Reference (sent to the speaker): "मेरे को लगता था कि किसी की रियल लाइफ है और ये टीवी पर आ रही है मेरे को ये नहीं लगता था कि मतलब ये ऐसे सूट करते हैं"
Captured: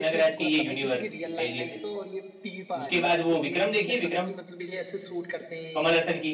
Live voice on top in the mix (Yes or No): Yes